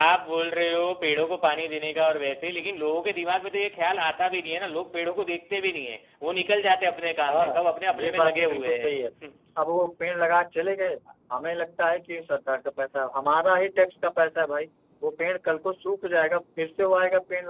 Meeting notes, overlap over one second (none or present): present